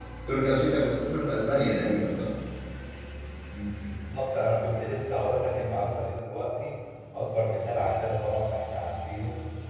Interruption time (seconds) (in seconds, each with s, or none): none